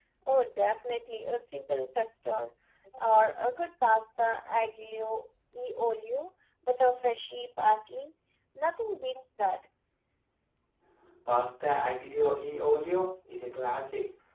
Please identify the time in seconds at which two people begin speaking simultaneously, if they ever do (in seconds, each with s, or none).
none